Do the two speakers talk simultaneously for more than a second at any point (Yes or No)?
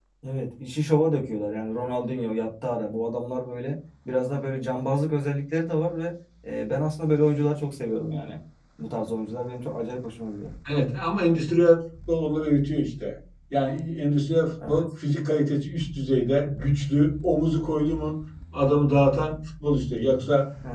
No